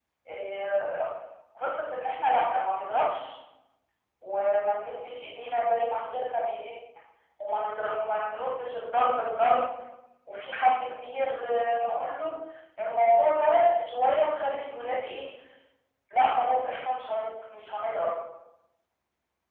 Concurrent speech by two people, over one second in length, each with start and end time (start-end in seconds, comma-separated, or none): none